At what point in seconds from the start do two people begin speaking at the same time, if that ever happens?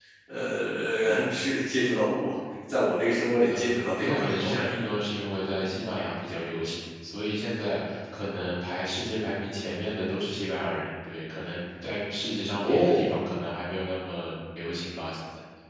3.5 s

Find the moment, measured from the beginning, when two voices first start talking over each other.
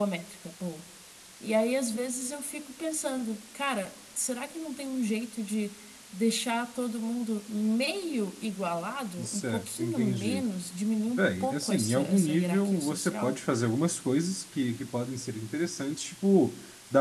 9.2 s

